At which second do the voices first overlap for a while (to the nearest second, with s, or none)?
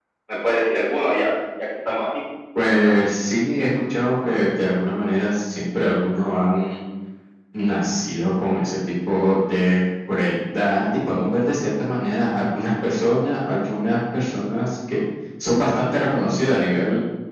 none